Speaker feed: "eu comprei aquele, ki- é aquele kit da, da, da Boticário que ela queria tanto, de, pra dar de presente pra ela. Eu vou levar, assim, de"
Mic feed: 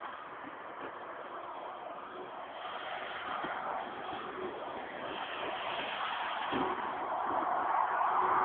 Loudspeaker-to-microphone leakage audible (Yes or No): No